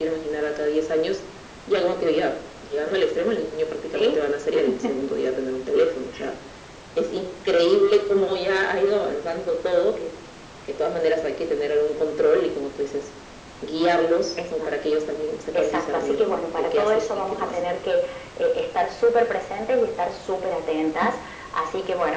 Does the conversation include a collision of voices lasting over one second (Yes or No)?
Yes